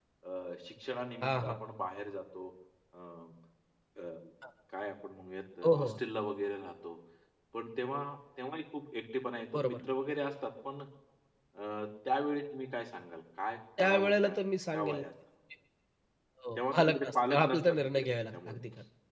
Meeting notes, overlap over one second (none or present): present